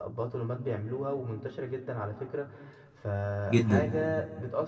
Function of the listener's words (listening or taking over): listening